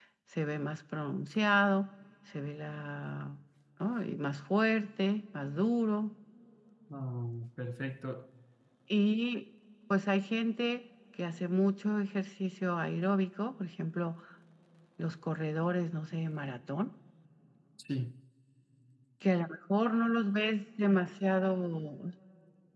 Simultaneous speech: No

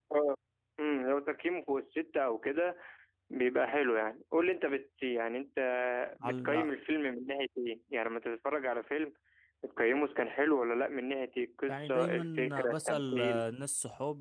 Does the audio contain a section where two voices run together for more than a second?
Yes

